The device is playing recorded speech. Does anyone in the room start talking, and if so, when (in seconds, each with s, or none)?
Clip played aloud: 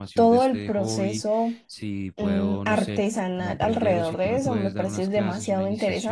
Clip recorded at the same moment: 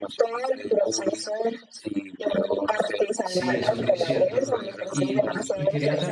3.2 s